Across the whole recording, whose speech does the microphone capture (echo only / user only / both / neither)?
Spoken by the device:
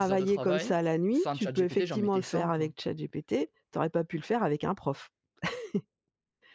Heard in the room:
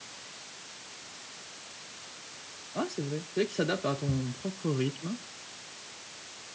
user only